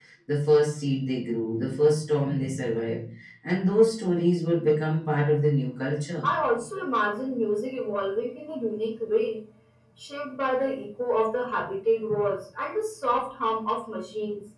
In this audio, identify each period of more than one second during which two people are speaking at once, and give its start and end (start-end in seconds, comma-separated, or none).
none